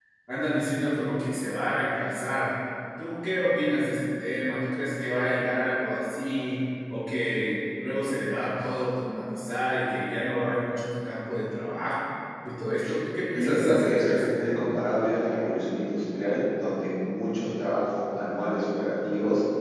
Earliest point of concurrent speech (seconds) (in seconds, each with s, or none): 13.4 s